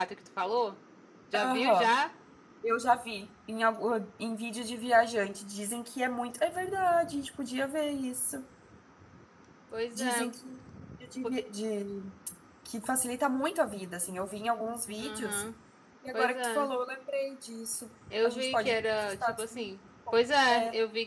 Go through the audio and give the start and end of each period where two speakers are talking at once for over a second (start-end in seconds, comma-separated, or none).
18.2-19.6